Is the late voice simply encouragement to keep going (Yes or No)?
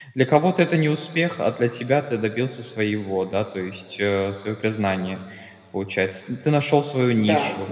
No